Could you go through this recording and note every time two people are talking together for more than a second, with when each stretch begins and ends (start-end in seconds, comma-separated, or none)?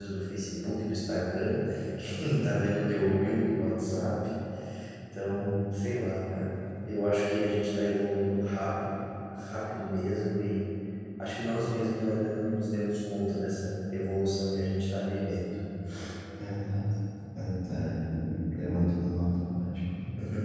none